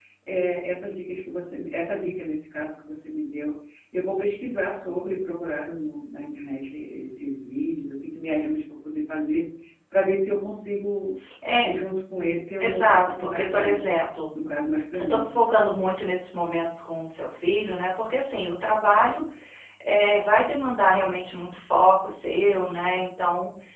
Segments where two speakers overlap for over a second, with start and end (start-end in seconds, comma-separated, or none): 12.6-13.9